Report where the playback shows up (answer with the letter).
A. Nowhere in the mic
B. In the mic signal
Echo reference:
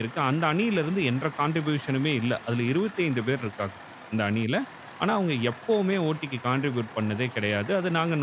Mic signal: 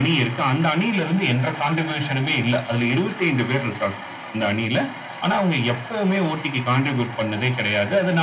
B